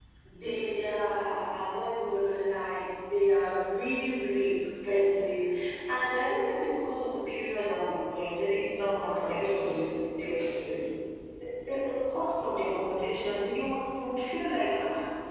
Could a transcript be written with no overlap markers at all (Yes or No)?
No